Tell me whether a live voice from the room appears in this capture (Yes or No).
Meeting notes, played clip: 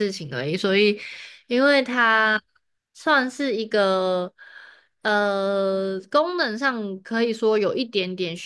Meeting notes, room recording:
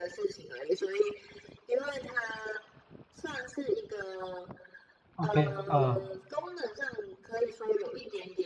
Yes